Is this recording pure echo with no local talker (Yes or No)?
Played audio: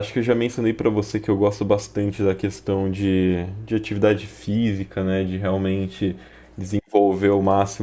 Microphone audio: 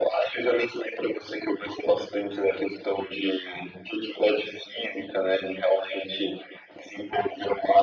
Yes